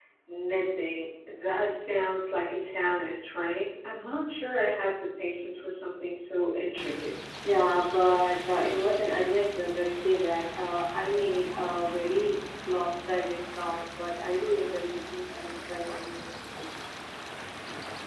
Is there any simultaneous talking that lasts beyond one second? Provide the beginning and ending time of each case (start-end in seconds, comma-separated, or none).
none